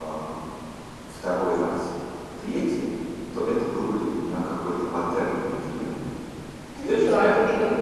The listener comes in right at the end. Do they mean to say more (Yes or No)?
Yes